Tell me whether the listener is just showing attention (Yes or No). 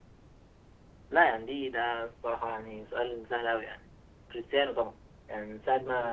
Yes